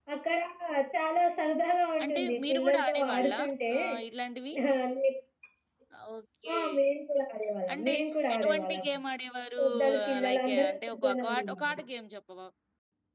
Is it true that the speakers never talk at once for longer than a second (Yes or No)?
No